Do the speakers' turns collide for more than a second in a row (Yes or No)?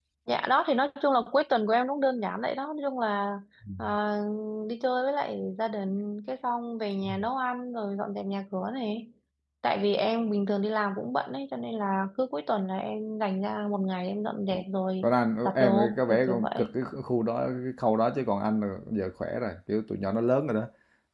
Yes